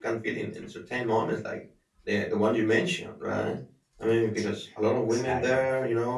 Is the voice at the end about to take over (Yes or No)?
No